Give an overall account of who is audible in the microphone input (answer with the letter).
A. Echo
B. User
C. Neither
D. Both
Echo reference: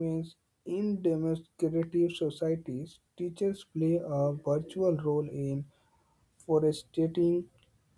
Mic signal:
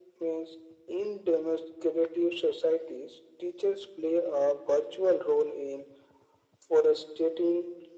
A